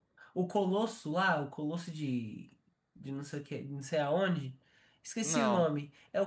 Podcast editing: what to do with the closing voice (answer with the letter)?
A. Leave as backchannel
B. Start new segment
A